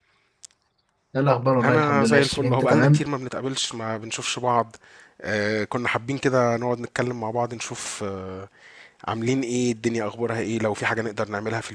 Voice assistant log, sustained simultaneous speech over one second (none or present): present